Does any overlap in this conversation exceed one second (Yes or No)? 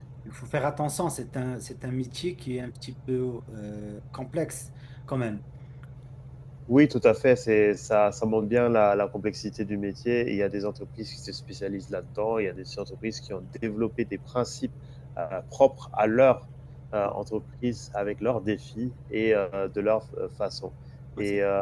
No